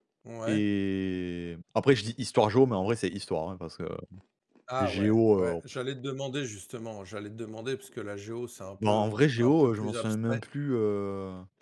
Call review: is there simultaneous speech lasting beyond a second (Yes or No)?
Yes